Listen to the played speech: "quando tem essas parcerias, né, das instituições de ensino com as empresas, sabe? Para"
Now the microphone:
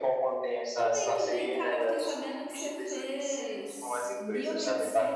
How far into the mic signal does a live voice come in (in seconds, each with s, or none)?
0.7 s